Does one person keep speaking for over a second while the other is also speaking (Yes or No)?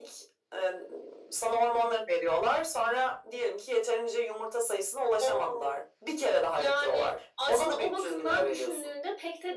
Yes